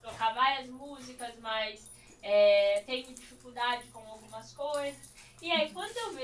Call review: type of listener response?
listening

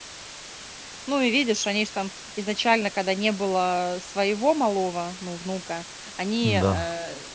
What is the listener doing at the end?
listening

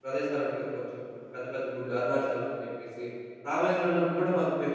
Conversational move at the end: listening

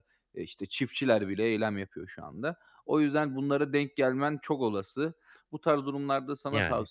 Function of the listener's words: listening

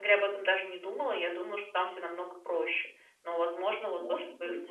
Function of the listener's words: listening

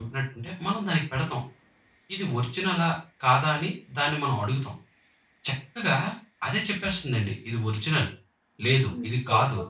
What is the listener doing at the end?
taking over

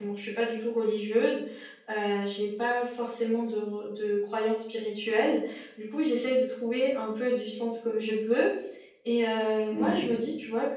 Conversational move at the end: listening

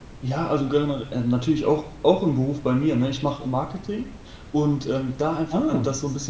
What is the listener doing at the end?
listening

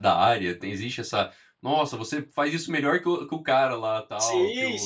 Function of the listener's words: taking over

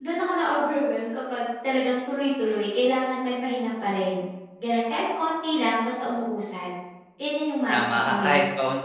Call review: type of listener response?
taking over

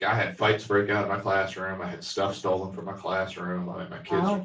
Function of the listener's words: listening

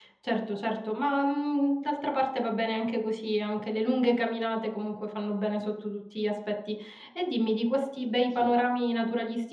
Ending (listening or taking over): listening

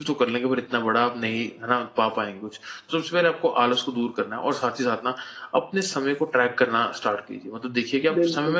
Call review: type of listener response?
listening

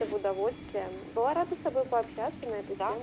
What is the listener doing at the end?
taking over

